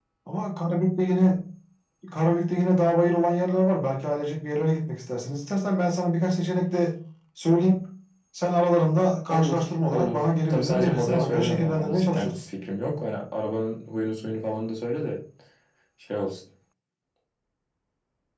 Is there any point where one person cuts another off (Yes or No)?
Yes